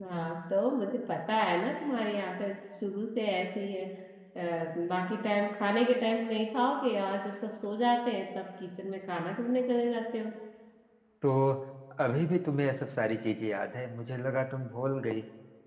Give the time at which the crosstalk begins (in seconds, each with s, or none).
none